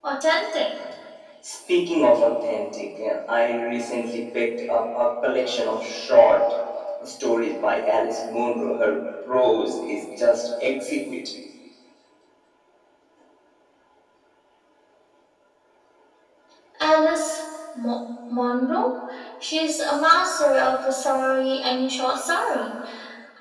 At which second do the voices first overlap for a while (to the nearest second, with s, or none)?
none